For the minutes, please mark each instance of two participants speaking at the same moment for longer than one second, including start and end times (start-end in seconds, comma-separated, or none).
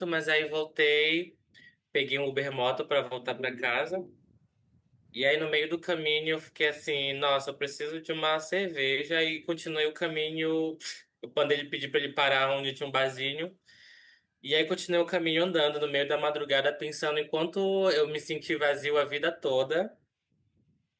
none